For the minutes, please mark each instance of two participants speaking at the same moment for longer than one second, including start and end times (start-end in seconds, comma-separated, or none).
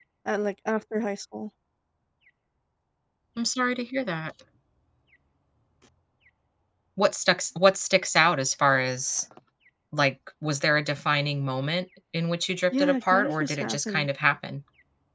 12.7-14.1